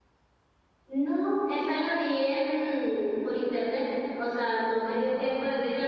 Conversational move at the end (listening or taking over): listening